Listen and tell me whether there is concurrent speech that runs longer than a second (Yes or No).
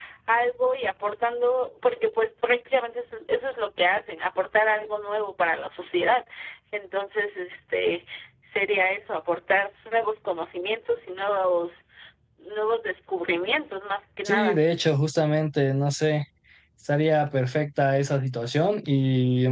No